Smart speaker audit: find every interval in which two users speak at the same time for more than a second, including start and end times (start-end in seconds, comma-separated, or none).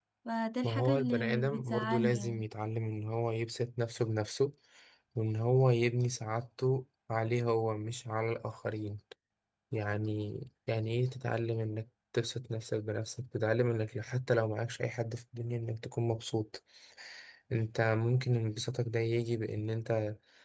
0.6-2.5